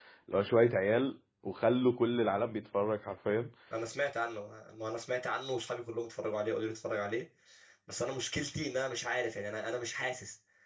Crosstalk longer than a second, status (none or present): none